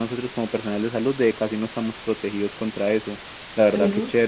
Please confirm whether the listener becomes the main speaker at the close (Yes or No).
No